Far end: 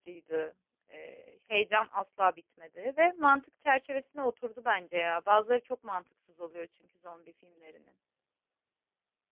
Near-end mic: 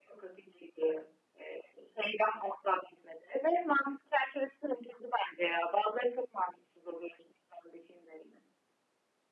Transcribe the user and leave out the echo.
none

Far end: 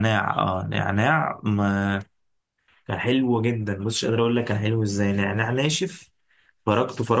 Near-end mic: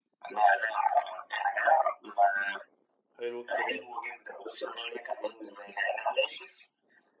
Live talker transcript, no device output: حلو الكلام

